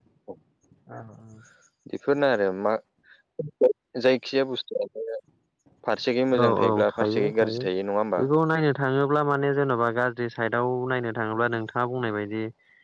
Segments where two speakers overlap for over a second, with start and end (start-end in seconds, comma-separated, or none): 6.4-7.6